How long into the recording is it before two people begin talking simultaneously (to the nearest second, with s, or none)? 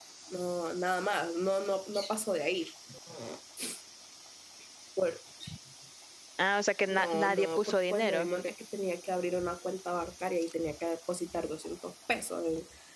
7 s